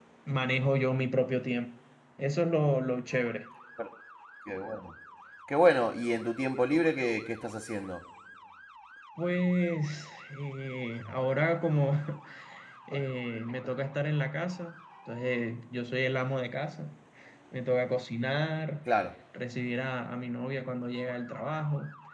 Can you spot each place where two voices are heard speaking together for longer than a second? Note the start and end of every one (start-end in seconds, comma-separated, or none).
none